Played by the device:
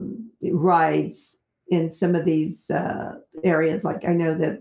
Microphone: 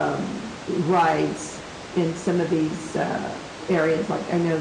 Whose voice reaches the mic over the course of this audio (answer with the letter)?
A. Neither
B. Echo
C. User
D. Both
B